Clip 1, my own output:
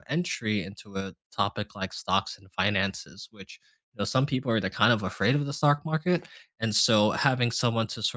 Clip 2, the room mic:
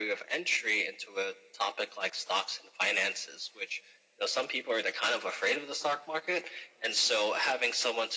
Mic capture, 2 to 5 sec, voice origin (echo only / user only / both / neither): echo only